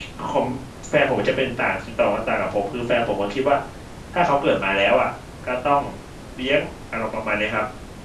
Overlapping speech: No

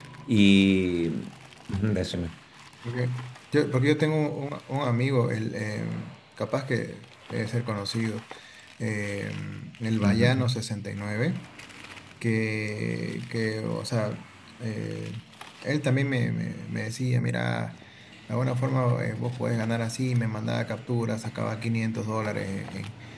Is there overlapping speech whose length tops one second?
No

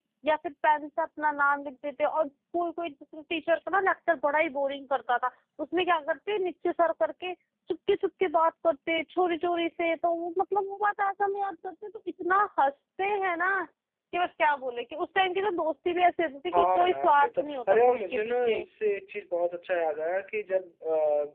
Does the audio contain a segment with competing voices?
Yes, from 16.5 s

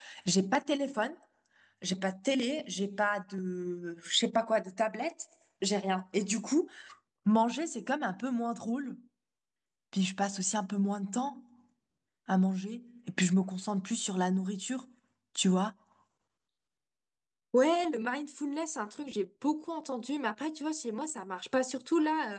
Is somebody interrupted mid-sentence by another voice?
No

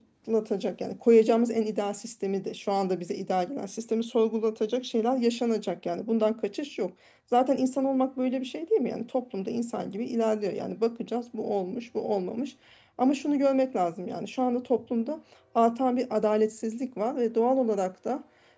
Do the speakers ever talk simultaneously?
No

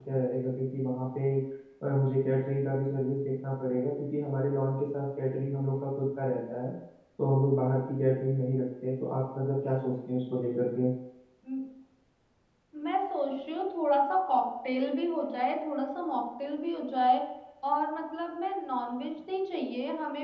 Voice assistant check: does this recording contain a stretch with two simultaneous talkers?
No

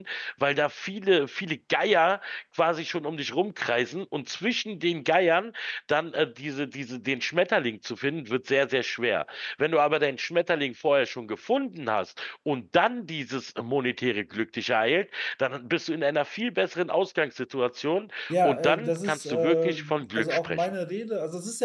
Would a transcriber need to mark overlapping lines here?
Yes, from 18.3 s

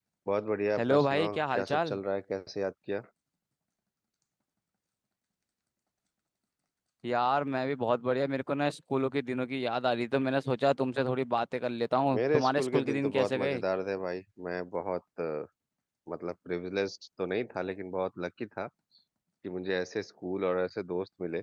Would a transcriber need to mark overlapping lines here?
Yes, from 0.8 s

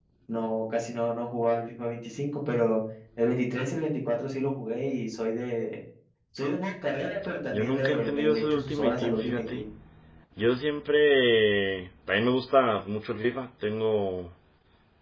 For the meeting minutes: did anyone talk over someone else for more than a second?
Yes, from 7.5 s

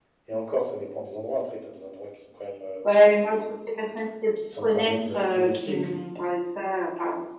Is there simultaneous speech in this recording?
Yes, from 4.4 s

